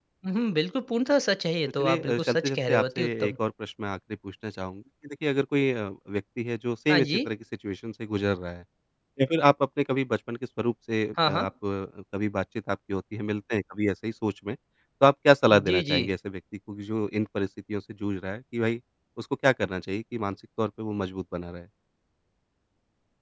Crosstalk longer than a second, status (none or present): present